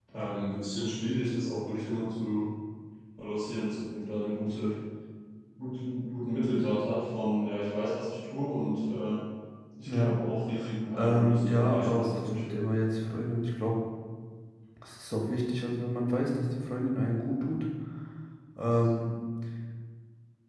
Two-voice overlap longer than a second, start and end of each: 10.9-12.6

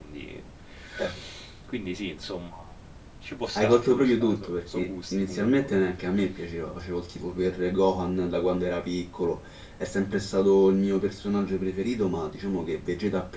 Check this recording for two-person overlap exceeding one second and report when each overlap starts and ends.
3.6-5.5

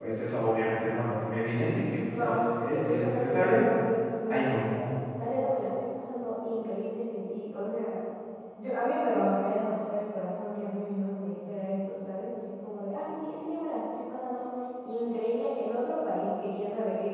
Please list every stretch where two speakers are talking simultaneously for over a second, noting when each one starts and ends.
2.2-3.6

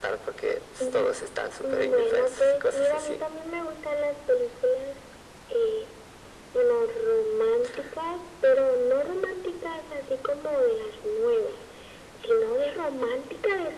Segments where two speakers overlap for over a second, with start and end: 1.6-3.2

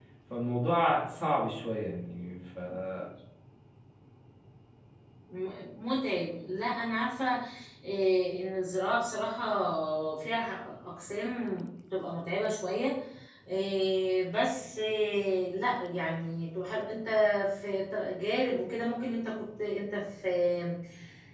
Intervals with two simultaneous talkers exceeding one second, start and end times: none

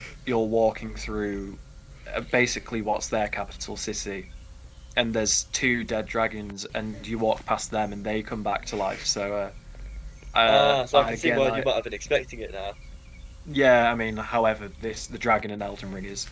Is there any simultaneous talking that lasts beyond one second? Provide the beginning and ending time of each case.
10.4-11.7

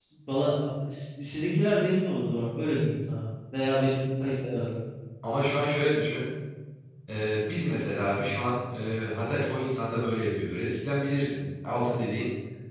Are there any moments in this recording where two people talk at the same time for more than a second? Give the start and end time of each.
none

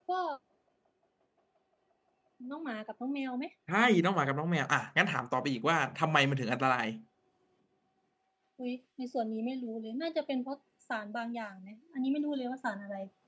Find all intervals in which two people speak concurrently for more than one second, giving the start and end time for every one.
none

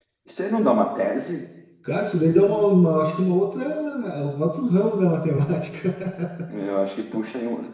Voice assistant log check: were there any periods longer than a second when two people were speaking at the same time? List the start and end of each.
none

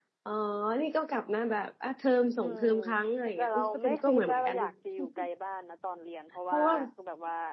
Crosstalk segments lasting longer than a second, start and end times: 3.2-4.7

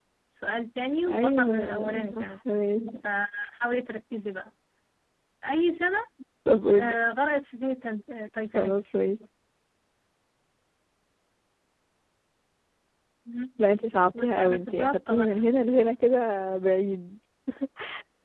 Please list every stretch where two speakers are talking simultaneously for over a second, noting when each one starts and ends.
1.1-2.3, 14.2-15.4

